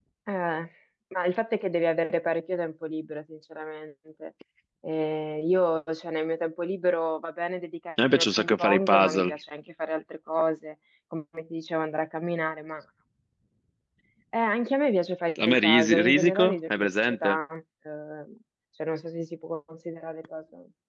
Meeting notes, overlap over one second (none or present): present